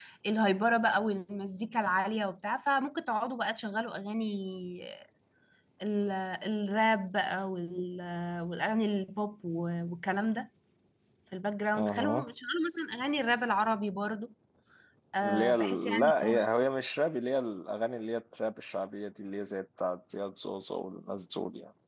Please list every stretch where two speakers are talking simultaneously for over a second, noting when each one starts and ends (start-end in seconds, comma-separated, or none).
15.2-16.5